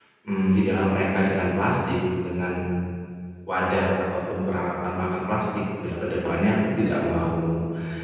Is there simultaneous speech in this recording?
No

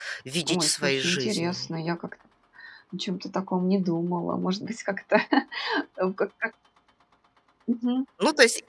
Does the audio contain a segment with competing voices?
Yes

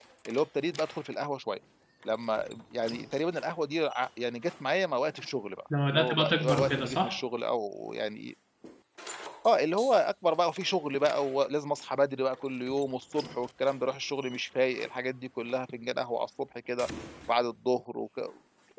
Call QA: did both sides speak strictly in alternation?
No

